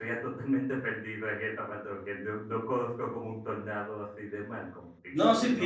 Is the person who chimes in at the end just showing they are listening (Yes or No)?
No